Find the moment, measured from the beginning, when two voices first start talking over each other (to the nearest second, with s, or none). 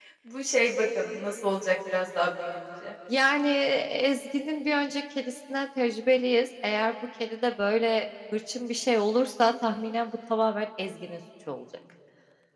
none